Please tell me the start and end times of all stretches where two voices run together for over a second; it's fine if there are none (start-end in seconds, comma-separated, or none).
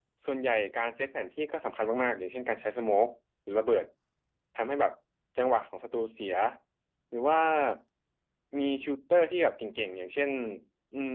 none